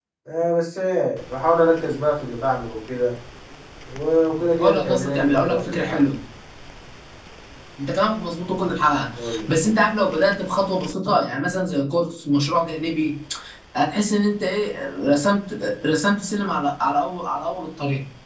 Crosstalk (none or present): present